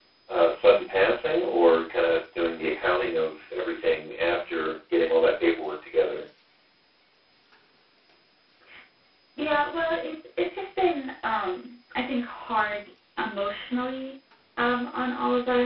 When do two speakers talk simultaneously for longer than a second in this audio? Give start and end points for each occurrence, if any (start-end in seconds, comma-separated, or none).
none